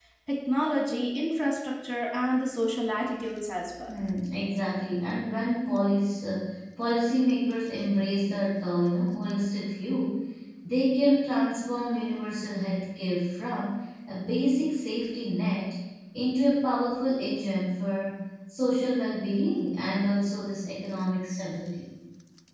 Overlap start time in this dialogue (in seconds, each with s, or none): none